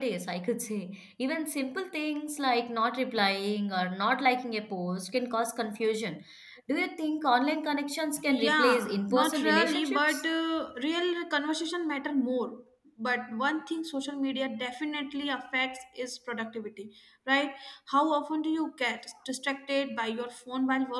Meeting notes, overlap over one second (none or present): present